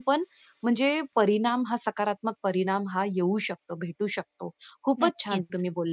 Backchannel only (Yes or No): Yes